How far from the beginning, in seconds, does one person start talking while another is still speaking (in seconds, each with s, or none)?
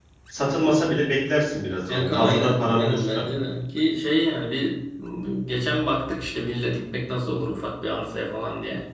1.9 s